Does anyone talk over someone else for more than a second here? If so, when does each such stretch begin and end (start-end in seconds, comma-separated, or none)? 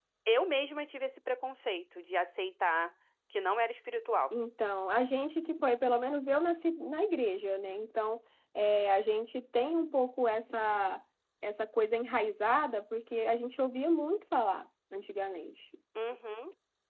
none